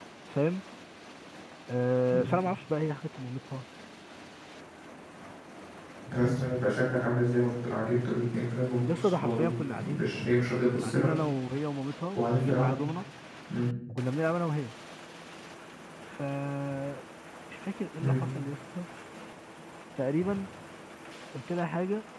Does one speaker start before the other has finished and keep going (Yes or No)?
Yes